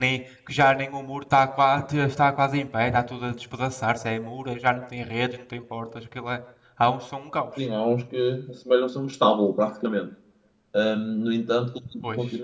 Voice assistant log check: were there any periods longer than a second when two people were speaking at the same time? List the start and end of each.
none

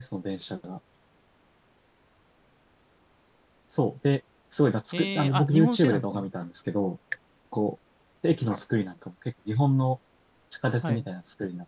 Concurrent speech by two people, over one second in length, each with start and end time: 4.9-6.3

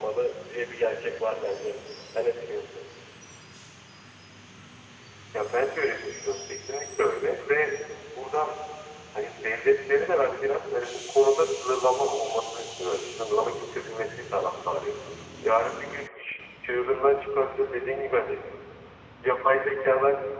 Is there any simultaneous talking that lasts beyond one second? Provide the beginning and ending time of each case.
none

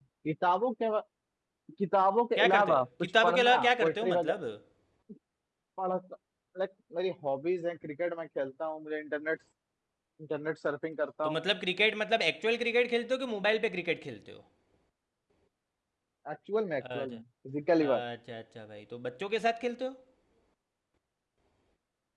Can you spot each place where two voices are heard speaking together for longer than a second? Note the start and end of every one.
2.4-4.4

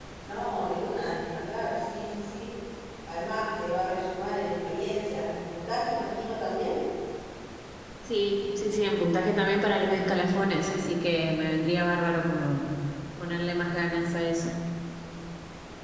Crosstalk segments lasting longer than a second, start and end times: none

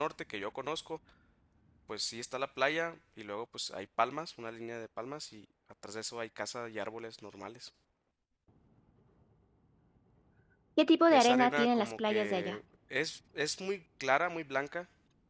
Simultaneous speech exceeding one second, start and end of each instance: 11.1-12.6

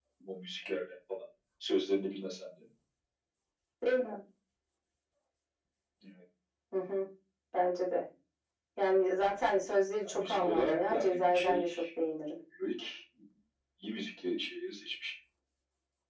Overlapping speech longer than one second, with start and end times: 10.0-11.7

